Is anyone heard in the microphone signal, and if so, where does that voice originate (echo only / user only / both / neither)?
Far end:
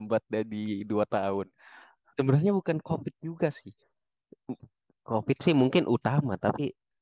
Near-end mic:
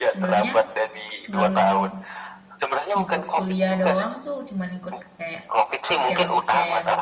both